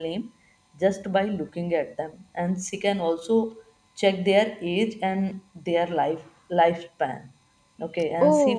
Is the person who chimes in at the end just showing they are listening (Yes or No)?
Yes